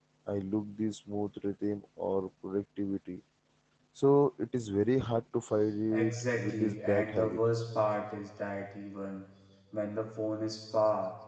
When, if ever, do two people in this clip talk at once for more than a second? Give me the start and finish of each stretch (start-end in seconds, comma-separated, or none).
5.9-7.4